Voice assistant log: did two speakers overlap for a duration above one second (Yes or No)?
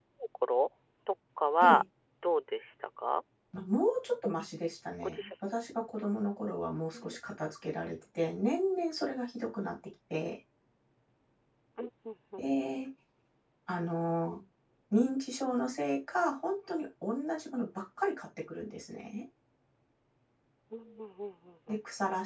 No